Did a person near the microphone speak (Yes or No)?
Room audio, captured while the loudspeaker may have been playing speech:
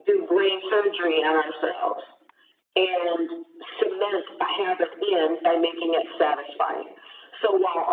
No